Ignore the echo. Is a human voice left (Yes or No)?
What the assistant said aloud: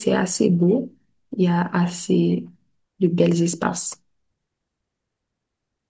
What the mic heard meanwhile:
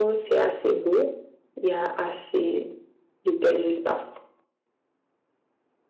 No